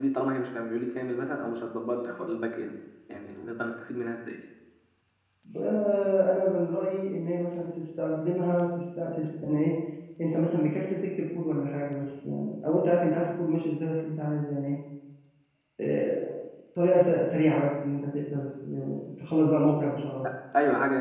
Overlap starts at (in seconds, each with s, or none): none